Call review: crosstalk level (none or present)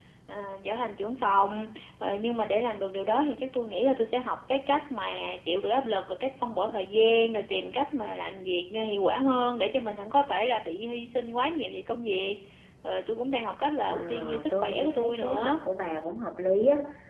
present